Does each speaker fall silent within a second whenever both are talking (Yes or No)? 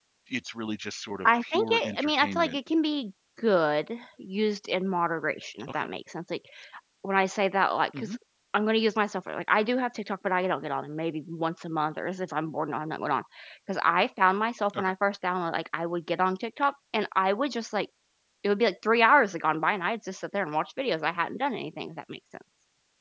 No